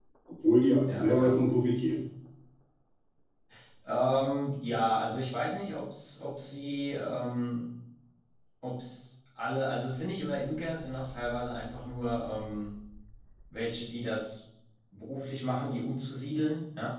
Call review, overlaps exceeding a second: none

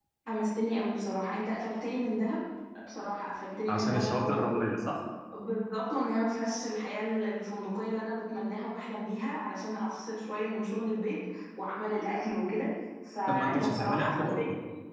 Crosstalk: present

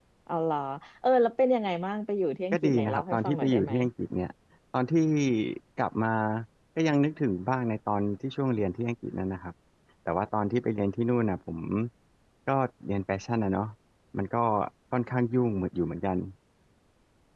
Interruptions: present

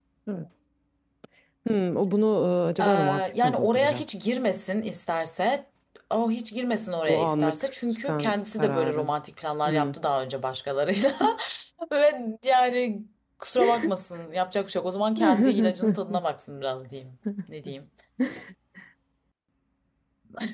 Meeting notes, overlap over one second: present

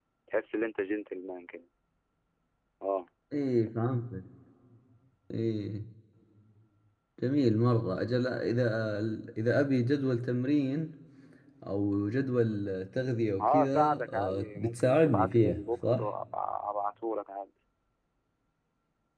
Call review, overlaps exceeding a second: present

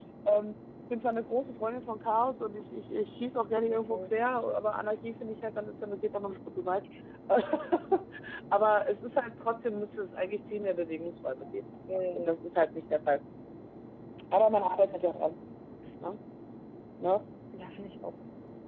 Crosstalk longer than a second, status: none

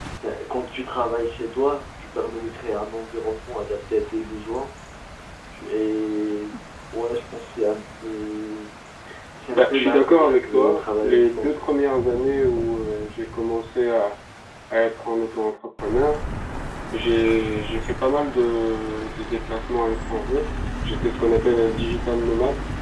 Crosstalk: present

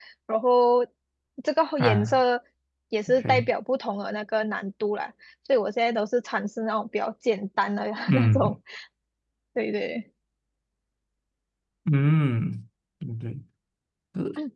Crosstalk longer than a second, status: none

